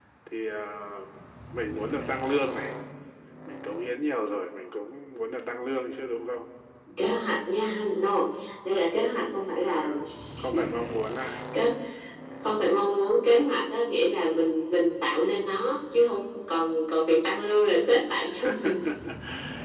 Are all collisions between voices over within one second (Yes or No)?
Yes